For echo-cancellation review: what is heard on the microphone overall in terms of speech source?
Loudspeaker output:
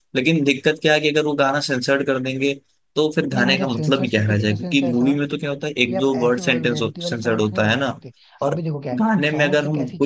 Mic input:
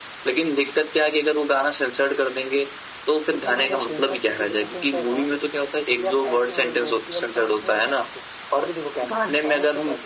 echo only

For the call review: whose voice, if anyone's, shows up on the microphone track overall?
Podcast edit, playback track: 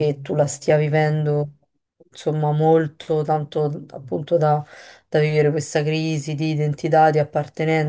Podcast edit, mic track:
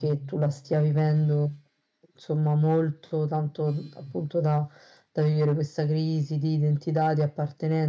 echo only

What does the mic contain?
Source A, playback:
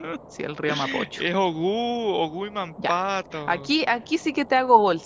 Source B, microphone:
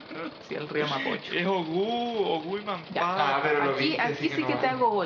both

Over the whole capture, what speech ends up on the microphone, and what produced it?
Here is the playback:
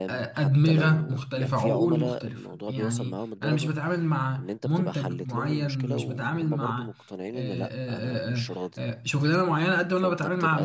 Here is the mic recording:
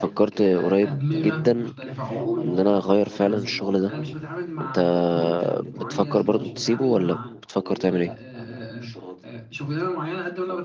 both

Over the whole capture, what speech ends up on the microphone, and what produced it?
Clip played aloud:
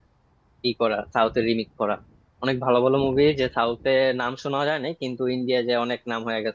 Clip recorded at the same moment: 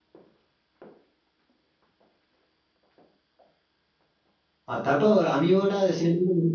user only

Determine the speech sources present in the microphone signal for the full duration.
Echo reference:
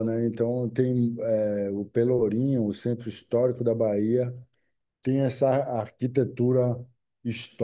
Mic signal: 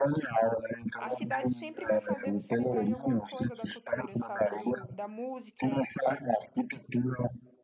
both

